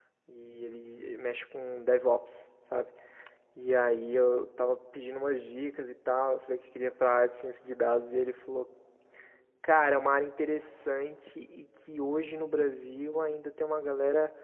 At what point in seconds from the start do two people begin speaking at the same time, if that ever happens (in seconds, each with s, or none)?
none